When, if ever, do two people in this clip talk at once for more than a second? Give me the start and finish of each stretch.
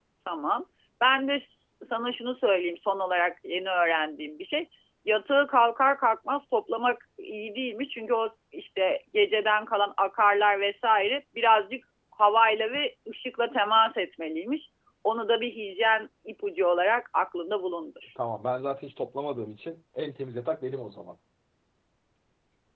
none

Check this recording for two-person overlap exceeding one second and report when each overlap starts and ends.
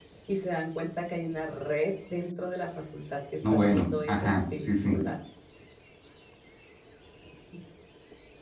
3.5-5.0

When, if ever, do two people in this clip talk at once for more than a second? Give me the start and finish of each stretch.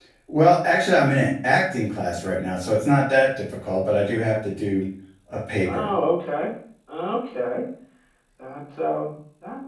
none

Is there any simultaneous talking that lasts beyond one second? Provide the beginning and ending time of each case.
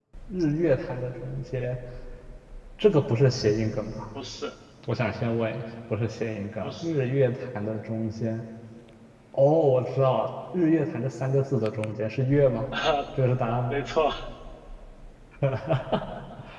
none

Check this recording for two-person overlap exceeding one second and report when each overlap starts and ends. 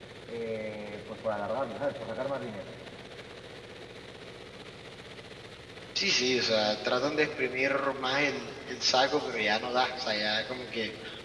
none

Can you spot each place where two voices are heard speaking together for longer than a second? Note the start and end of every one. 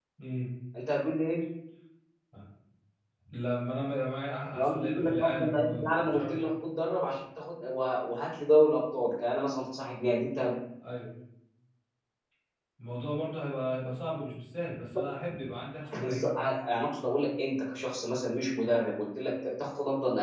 4.5-6.4

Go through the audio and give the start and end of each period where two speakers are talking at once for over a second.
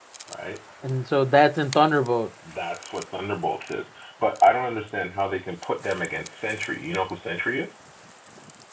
none

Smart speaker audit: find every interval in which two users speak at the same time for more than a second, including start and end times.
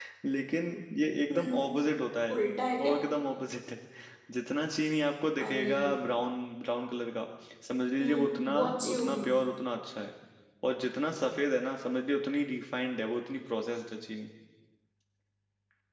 8.0-9.2

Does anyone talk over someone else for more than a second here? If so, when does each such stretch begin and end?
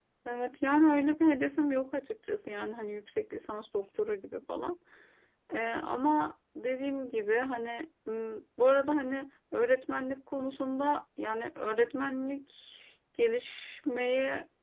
none

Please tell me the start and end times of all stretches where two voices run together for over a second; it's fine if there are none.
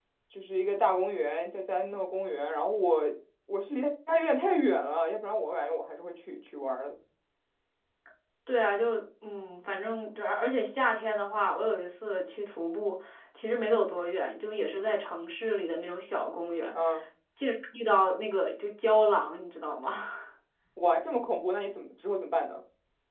none

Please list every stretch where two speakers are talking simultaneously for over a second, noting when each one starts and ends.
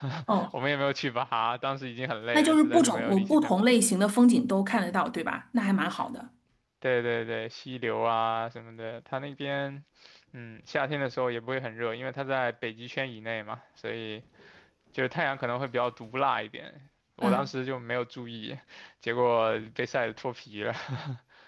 2.3-3.7

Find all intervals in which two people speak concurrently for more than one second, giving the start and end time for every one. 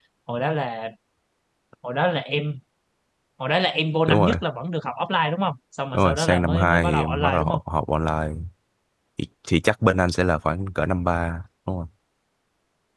5.9-7.6

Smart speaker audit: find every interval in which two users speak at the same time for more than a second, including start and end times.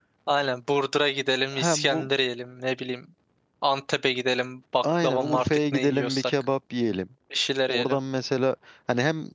4.8-6.3

